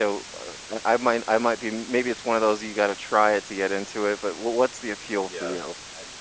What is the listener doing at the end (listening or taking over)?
taking over